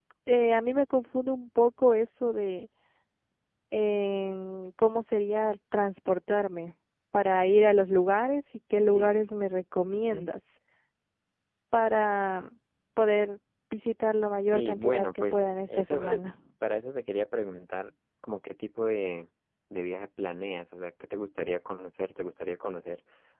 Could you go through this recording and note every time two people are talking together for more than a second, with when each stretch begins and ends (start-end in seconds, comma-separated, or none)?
14.5-16.4